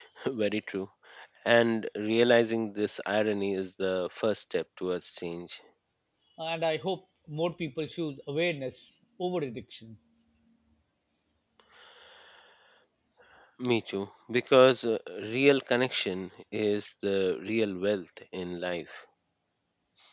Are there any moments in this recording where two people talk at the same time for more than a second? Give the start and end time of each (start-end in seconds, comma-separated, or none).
none